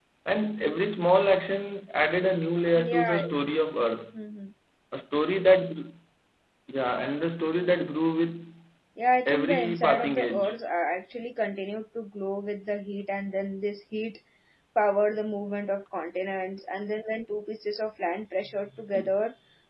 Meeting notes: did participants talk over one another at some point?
Yes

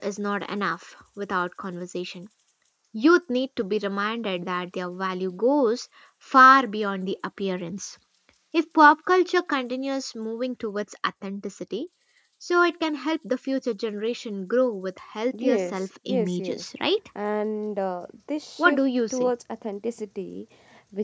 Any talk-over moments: Yes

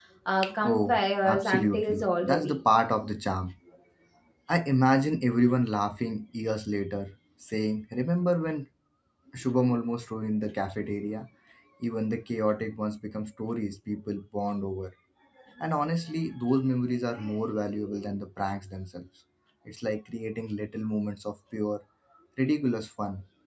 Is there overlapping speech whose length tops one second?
Yes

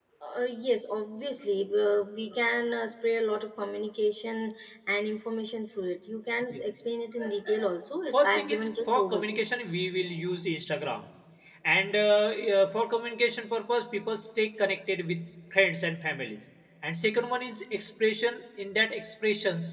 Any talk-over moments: Yes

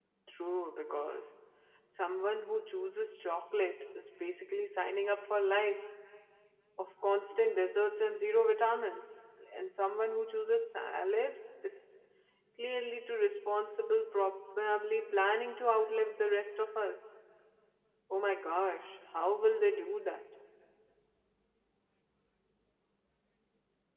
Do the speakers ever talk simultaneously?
No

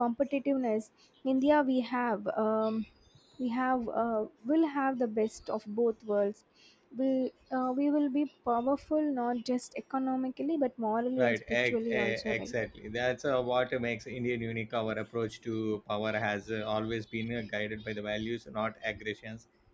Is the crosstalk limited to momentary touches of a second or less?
No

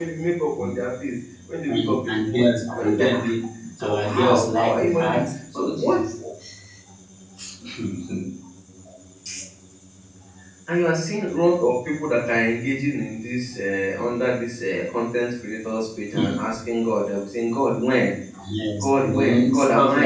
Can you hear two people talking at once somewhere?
Yes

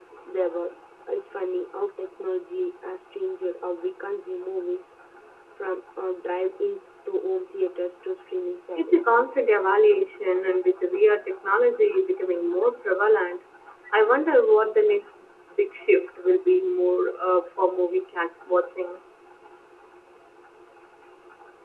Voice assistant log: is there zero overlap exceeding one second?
Yes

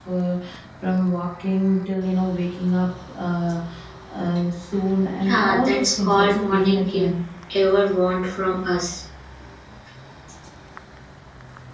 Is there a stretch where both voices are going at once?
Yes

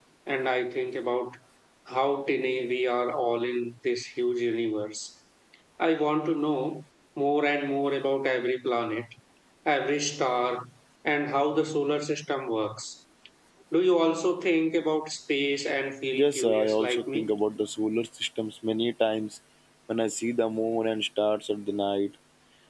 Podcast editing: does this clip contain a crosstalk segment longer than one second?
Yes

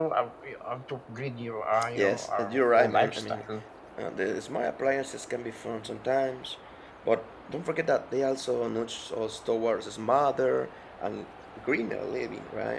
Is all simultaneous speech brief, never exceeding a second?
No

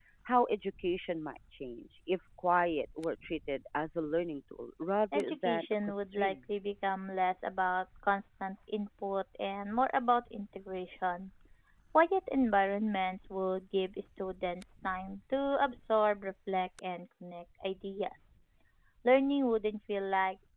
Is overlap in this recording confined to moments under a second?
No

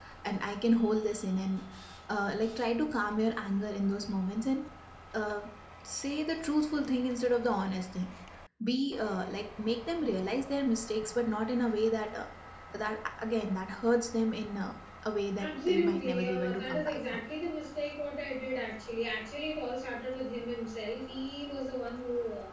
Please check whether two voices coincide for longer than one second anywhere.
Yes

